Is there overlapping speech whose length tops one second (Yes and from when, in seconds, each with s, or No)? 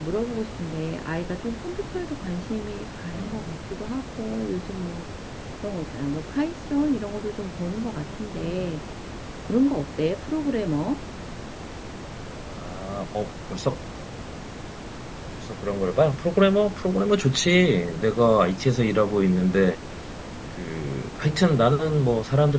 No